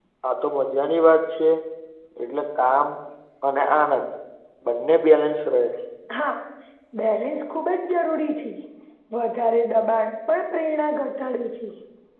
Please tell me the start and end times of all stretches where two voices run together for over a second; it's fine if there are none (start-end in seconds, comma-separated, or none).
none